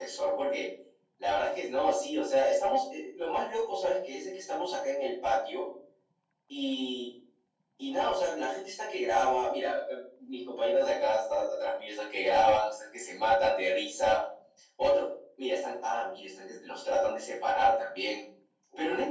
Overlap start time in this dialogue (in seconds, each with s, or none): none